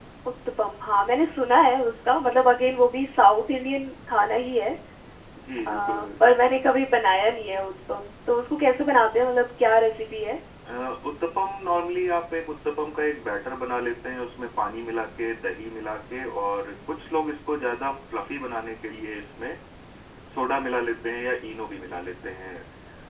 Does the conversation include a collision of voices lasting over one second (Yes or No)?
No